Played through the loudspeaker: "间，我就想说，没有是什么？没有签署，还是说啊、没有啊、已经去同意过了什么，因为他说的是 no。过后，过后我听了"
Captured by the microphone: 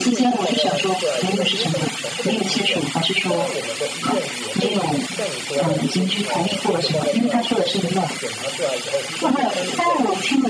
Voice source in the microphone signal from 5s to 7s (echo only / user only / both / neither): both